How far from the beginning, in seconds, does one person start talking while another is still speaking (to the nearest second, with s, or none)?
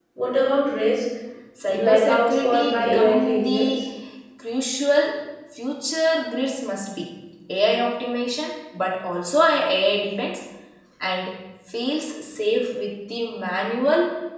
2 s